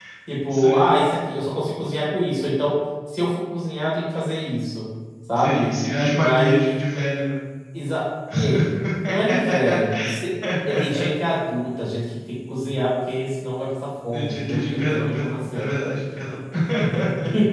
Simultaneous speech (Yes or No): Yes